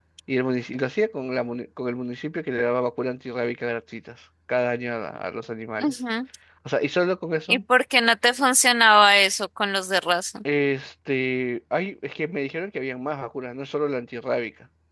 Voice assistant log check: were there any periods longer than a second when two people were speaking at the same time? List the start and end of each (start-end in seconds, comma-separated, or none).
none